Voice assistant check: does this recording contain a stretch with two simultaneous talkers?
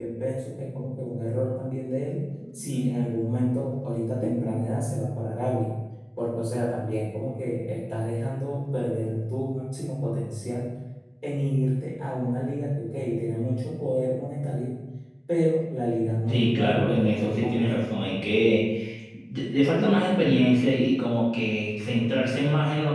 Yes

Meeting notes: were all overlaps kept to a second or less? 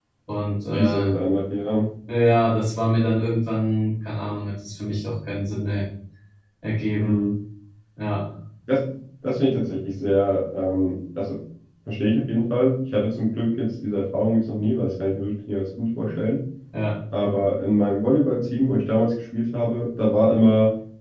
Yes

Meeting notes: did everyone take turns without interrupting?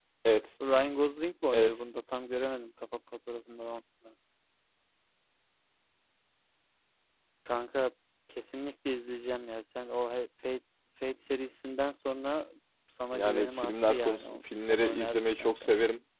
No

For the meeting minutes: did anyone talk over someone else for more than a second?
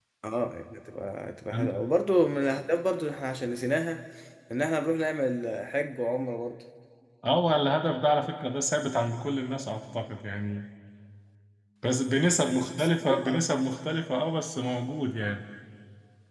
Yes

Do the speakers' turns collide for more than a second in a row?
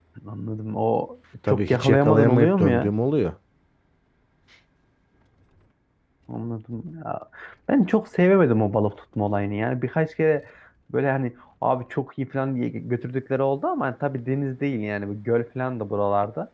Yes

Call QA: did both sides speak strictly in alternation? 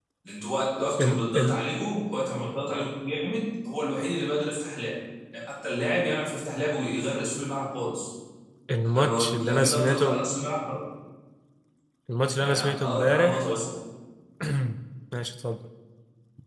No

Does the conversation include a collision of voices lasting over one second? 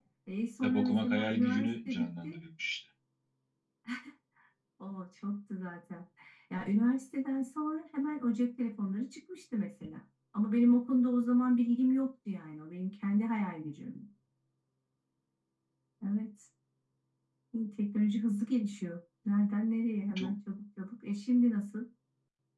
Yes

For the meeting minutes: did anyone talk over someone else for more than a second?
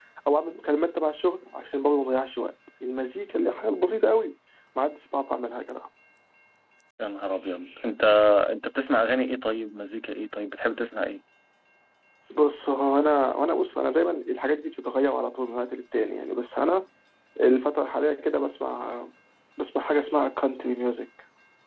No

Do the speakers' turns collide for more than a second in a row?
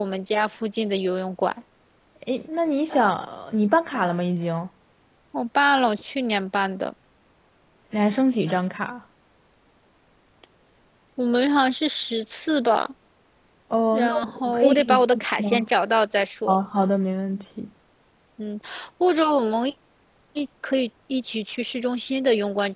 Yes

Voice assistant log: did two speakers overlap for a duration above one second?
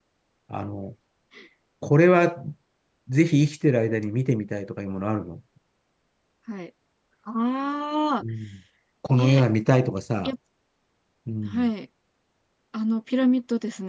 No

